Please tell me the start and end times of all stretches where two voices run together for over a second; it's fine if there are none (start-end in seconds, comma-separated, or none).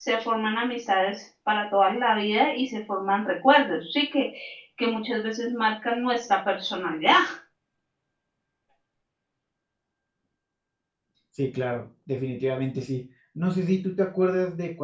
none